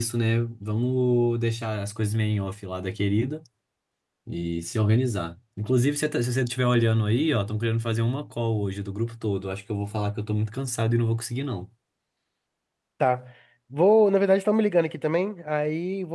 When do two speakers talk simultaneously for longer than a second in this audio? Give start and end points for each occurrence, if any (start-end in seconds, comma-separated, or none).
none